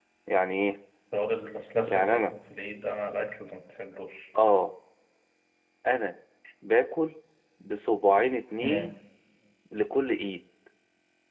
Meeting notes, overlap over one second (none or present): none